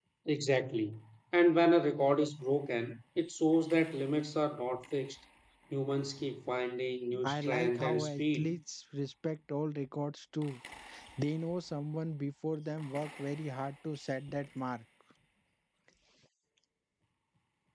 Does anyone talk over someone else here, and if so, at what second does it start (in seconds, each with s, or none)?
7.1 s